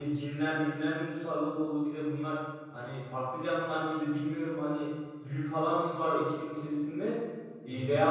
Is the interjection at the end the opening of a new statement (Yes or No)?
No